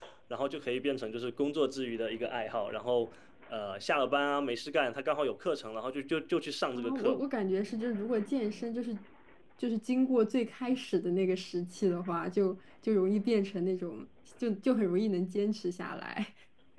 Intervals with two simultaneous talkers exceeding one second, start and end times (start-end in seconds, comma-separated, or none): none